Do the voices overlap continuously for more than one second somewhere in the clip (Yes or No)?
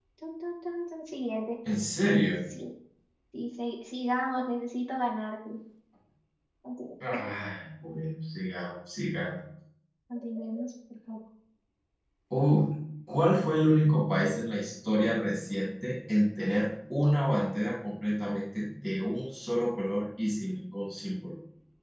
No